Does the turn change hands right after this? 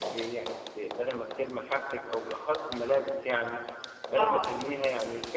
No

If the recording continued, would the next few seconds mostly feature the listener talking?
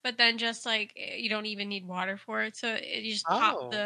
No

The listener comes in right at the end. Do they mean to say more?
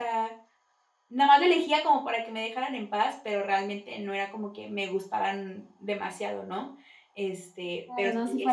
Yes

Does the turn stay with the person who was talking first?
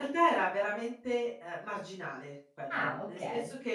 Yes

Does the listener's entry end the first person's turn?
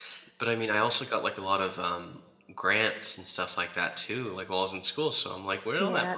Yes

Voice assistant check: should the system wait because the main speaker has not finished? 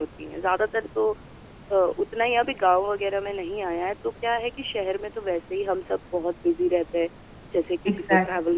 No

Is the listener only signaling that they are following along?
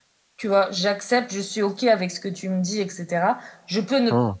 Yes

